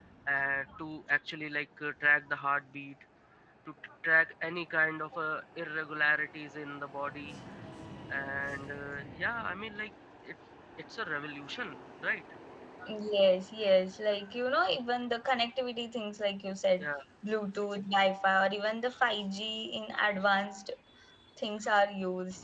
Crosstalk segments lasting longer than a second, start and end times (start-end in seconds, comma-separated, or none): none